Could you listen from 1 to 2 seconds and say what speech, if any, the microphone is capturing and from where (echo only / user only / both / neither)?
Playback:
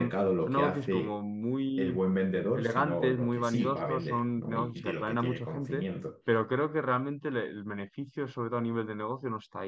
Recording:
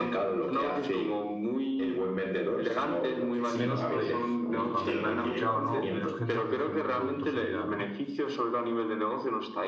echo only